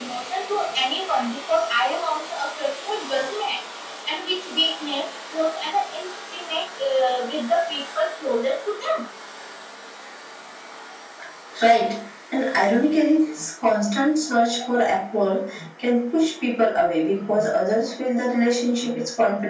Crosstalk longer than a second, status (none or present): none